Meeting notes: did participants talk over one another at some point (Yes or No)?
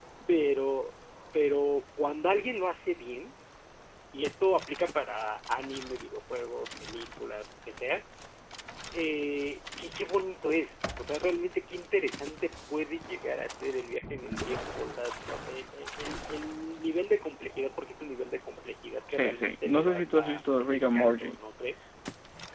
Yes